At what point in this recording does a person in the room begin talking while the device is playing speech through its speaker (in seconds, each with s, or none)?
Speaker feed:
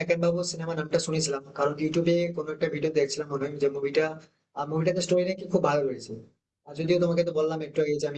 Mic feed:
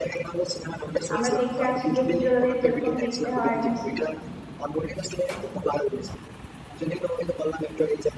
1.1 s